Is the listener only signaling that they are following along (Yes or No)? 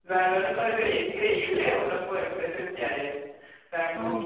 Yes